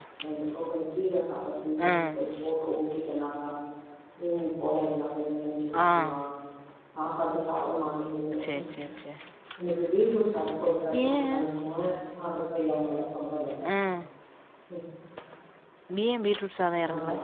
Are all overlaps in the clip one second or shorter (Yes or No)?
Yes